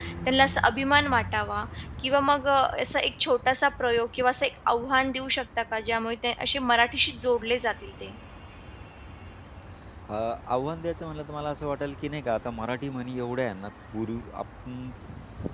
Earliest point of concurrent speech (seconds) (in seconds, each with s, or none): none